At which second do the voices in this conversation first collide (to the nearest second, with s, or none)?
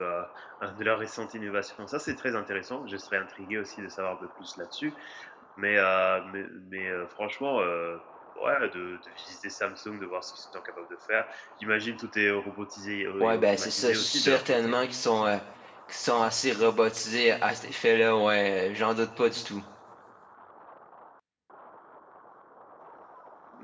13 s